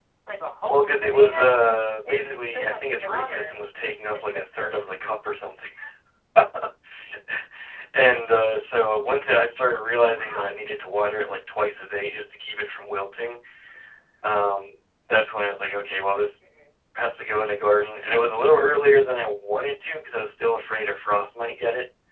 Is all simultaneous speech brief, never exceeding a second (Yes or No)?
No